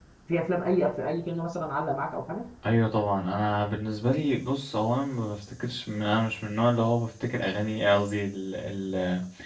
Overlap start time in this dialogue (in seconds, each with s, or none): none